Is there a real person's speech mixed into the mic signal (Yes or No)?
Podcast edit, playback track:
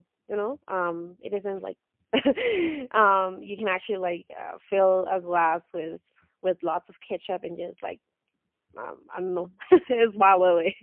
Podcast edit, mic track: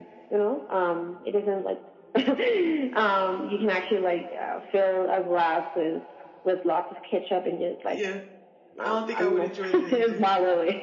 Yes